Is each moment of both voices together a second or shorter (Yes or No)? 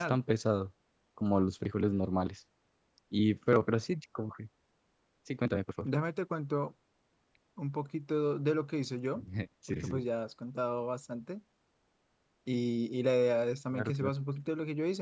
Yes